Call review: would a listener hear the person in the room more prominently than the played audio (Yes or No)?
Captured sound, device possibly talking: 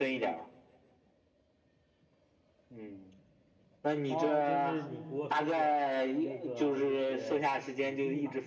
No